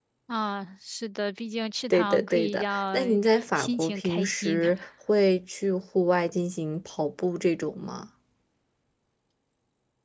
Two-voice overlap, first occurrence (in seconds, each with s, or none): 1.9 s